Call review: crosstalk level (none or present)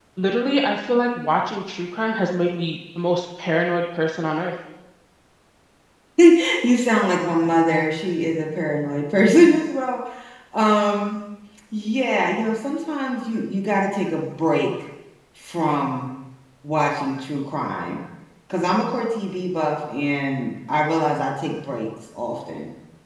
none